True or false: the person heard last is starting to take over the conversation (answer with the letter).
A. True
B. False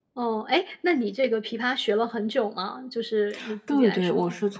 A